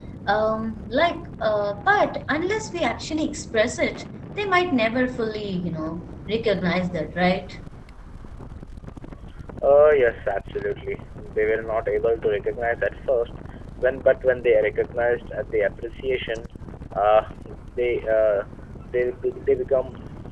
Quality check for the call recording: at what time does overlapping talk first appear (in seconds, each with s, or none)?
none